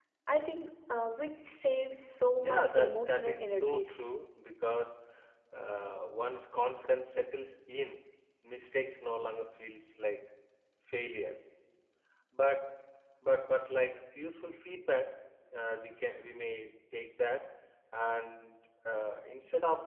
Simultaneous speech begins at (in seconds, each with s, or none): 2.4 s